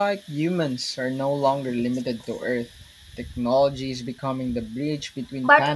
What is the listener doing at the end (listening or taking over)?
taking over